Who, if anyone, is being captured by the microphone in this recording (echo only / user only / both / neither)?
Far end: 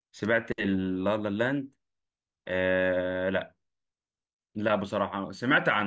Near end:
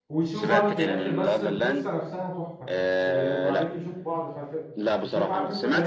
both